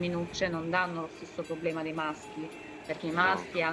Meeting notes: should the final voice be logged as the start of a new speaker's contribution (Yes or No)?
No